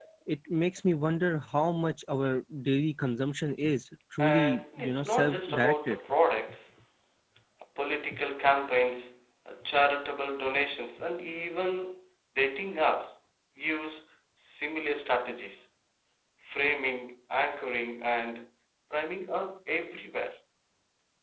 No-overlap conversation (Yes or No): No